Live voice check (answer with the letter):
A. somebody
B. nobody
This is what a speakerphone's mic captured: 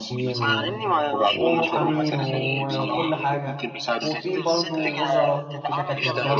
A